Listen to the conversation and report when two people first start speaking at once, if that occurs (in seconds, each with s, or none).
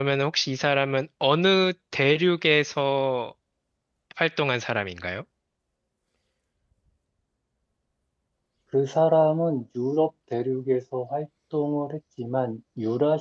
none